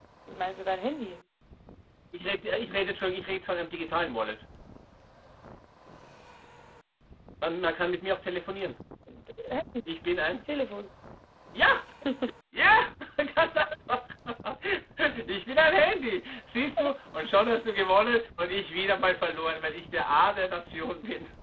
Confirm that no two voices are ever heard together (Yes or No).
Yes